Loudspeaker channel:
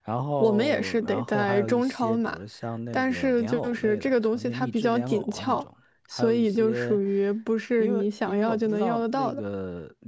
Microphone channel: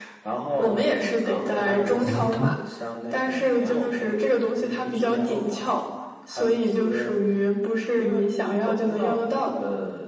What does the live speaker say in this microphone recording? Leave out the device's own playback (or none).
胡辣汤，